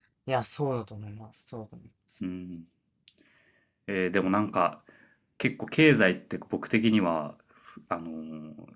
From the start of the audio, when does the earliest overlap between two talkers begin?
none

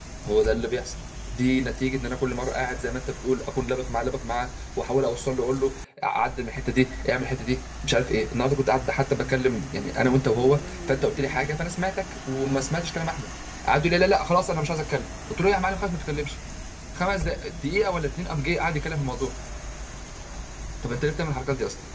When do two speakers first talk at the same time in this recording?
none

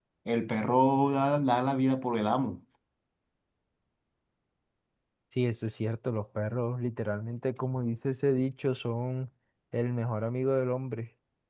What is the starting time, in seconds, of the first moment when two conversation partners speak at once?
none

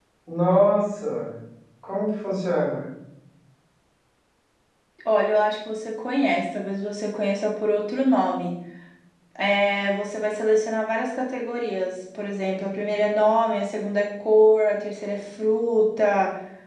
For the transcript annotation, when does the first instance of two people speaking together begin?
none

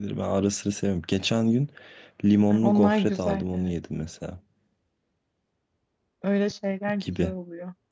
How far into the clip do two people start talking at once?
2.5 s

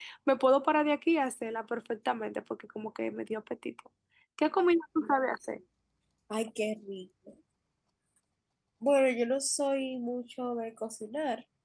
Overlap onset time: none

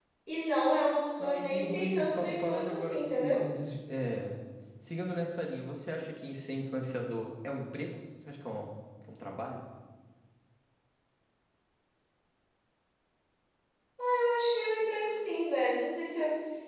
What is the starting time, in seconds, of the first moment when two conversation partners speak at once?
1.2 s

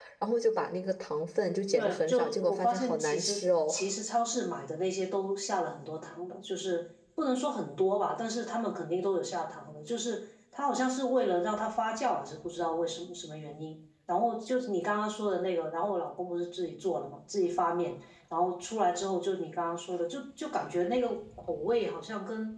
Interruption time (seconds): 1.7 s

